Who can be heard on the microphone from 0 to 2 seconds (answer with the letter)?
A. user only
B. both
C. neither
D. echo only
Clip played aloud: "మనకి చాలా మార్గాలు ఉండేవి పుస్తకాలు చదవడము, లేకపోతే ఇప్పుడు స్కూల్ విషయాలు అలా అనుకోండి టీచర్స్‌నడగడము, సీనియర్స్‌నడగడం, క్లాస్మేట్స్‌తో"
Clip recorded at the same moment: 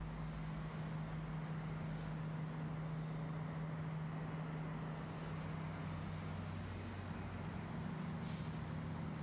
C